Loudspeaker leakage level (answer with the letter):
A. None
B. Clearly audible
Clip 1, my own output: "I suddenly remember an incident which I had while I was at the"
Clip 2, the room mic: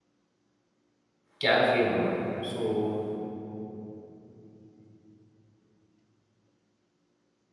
A